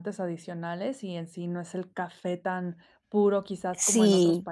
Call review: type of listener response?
taking over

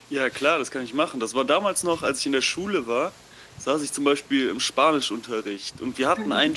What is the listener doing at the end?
listening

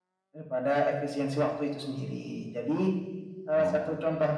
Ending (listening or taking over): listening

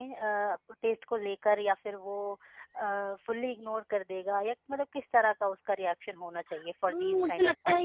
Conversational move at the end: taking over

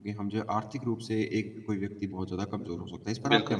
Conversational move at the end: taking over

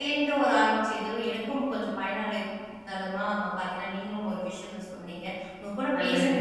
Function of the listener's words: listening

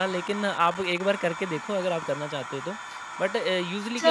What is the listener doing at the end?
taking over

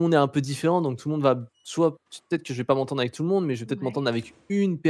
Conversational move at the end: listening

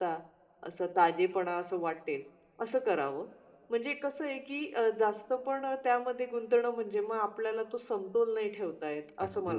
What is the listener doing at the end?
taking over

